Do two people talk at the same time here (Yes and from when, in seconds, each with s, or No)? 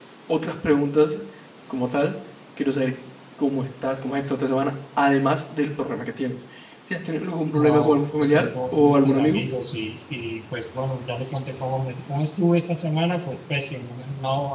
Yes, from 7.5 s